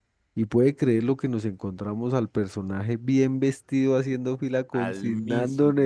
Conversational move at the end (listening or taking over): listening